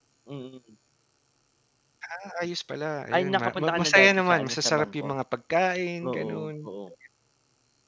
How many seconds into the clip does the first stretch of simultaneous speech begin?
3 s

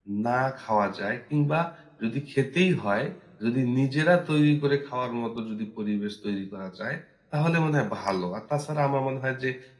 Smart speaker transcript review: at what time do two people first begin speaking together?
none

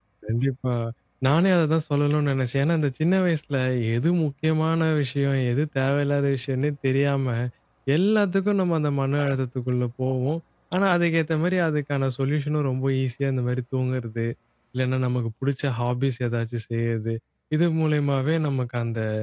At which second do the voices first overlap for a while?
none

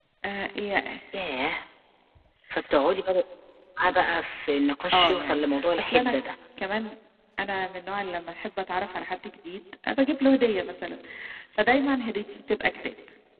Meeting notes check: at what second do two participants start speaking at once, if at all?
5 s

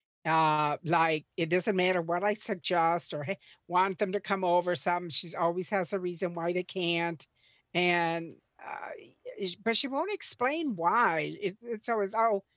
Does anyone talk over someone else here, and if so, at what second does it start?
none

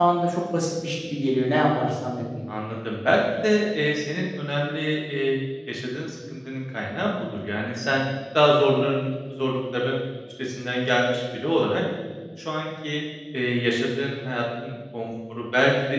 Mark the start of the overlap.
none

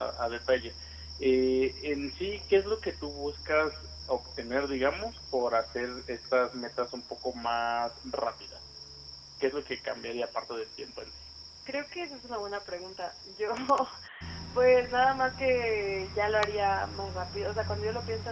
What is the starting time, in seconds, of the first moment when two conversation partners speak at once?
none

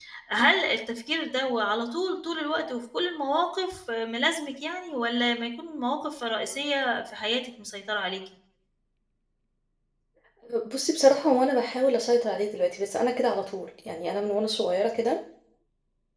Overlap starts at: none

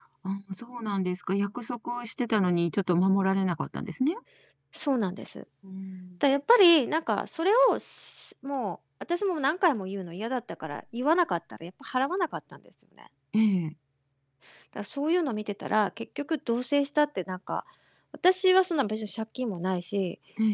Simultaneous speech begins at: none

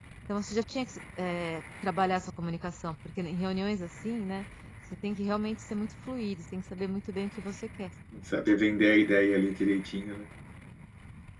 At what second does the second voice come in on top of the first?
none

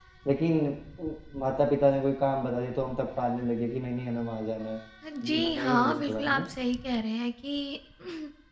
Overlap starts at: 5 s

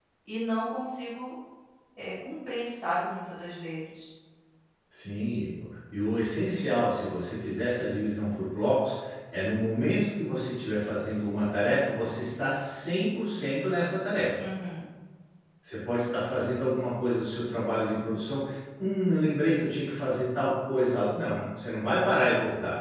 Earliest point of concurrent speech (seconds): none

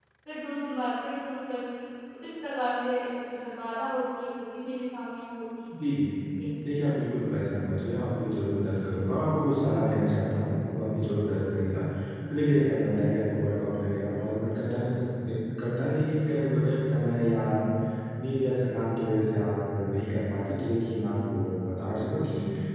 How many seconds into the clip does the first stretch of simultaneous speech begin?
none

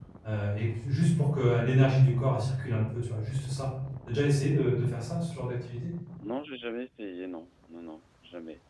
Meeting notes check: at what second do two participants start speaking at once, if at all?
none

